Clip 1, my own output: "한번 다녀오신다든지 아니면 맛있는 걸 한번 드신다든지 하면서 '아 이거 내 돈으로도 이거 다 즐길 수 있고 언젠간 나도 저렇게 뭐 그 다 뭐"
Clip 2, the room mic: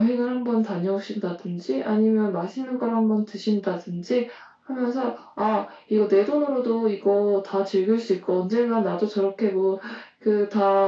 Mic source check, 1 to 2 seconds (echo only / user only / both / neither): echo only